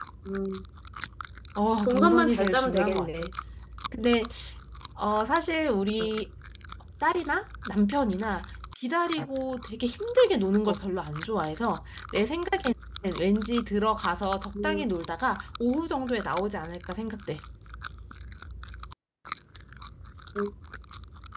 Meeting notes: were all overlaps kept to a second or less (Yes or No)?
No